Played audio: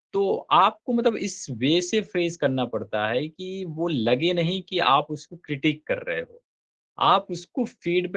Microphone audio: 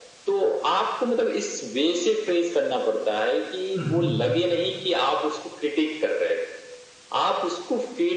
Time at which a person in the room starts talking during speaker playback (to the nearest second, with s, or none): 4 s